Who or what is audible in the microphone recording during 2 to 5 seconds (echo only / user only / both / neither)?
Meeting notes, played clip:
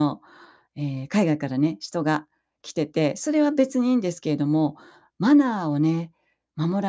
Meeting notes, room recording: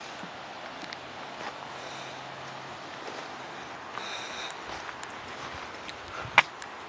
neither